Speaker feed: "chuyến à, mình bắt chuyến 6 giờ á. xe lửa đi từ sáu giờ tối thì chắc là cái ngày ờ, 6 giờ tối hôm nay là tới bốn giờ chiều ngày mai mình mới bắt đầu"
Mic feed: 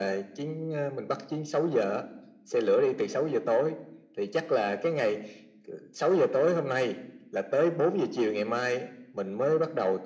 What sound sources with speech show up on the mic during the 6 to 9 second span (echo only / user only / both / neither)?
echo only